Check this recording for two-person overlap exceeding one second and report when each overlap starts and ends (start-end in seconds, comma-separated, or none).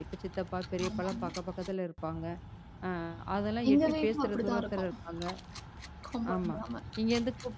3.7-4.9